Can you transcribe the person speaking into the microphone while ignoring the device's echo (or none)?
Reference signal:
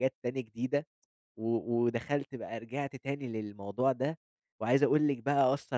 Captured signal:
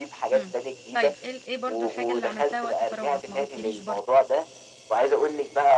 إمم. طيب، إيه ال إيه برضه الحاجة اللي عملتها وقت فراغك، ما قلتيليش برضه؟